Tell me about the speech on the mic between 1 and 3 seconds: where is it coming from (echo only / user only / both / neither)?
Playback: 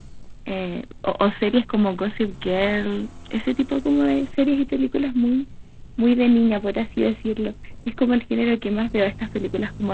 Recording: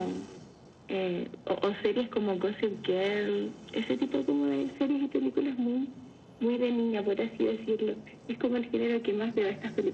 echo only